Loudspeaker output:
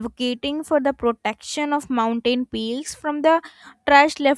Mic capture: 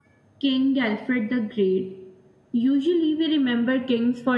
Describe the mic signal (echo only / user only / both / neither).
user only